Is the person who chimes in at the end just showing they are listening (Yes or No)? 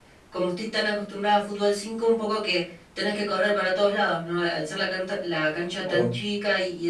Yes